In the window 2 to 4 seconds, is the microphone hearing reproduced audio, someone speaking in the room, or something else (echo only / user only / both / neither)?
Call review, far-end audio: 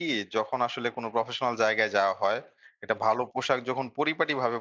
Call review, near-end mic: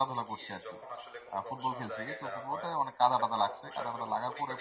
both